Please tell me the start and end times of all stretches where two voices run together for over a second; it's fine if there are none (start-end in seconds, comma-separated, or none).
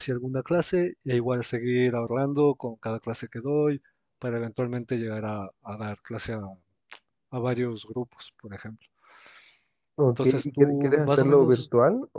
10.1-11.6